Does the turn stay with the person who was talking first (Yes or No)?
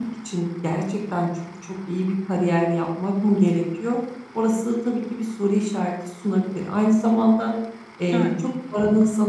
Yes